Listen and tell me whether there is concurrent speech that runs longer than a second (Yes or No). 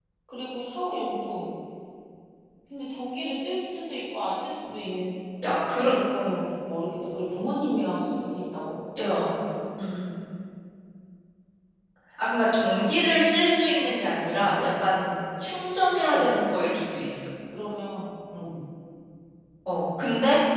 No